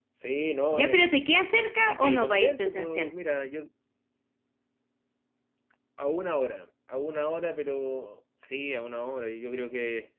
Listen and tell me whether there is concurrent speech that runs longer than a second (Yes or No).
Yes